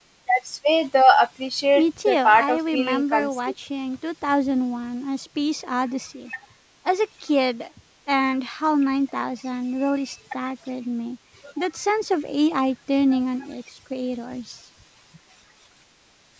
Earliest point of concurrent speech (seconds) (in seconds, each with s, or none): 1.8 s